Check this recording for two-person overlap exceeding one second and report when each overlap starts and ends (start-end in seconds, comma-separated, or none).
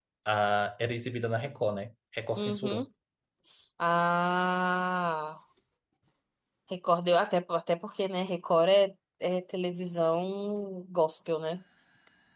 none